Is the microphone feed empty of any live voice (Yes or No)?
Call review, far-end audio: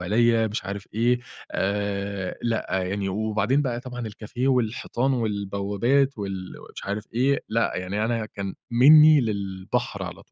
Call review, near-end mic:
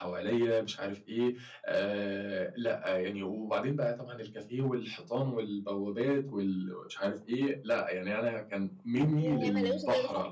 No